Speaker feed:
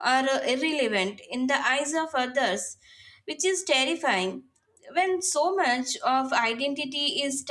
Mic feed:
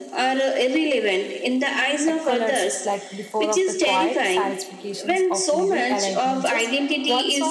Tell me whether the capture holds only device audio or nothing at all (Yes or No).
No